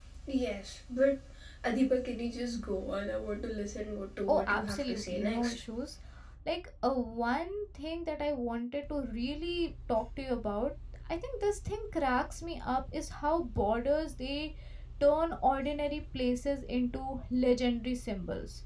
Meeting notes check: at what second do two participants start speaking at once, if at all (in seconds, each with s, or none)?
4.3 s